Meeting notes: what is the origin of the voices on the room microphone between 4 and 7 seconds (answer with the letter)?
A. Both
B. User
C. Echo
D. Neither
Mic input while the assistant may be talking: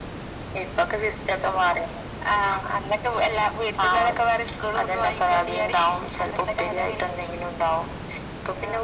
C